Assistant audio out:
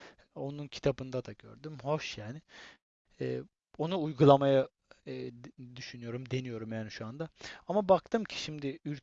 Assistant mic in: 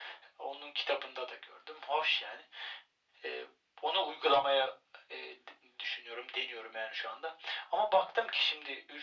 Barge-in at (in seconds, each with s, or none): none